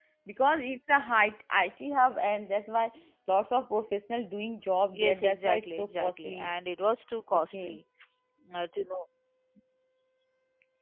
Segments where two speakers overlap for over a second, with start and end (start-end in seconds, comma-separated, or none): 4.9-6.6